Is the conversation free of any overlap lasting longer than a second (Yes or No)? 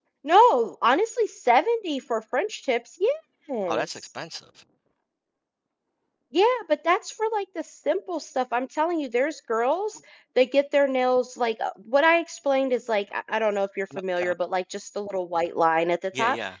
Yes